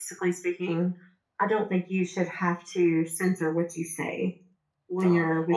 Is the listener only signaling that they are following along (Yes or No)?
No